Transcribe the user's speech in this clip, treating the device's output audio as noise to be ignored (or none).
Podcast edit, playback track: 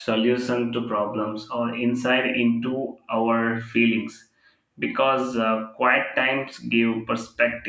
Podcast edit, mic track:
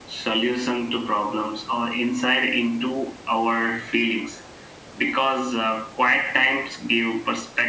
none